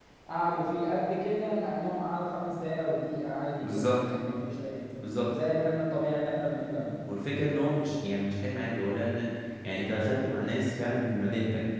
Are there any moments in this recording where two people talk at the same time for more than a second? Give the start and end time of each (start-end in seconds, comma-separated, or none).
none